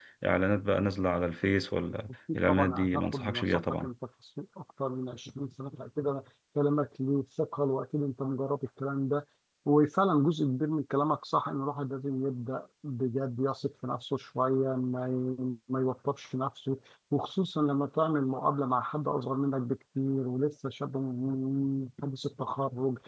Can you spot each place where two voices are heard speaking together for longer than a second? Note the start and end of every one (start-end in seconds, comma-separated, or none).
2.3-3.9